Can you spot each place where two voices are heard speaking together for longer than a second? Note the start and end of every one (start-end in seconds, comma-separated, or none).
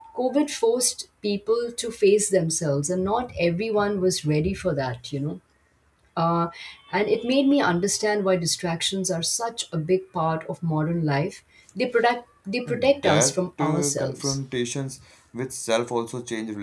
12.7-14.4